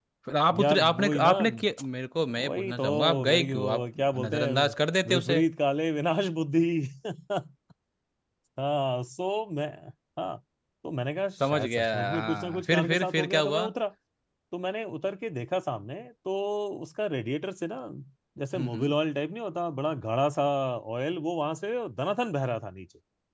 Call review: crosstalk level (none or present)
present